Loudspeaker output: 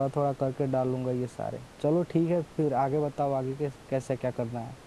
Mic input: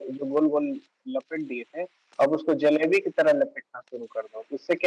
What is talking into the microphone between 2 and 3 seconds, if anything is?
user only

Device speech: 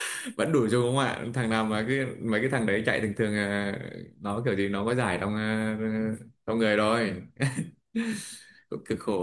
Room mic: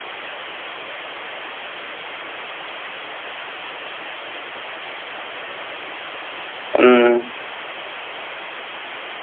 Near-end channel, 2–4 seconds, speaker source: neither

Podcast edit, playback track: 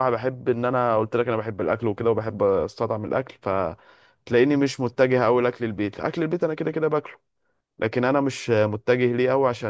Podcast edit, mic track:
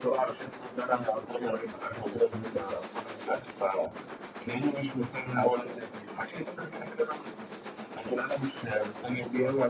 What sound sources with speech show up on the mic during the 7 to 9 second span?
echo only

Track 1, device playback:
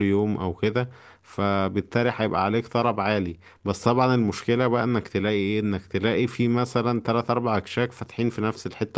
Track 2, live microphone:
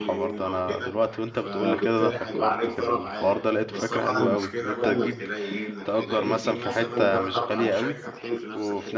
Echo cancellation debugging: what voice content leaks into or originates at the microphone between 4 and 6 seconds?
both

